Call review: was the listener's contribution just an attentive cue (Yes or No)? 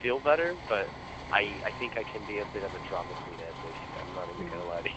No